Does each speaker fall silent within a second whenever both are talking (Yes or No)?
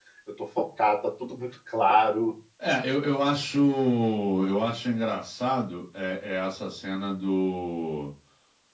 Yes